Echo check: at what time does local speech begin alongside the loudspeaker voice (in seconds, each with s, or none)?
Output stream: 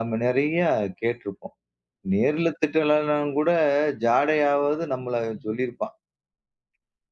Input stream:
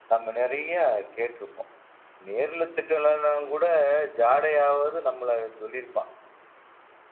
none